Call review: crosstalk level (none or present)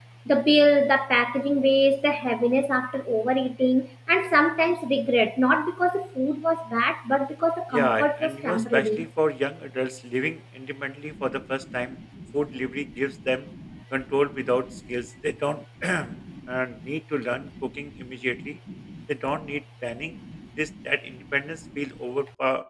present